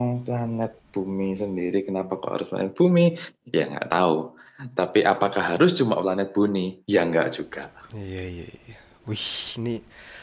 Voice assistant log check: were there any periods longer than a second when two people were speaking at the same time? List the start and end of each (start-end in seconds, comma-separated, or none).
none